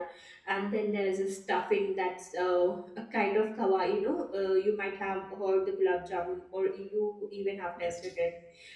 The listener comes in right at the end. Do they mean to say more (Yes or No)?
No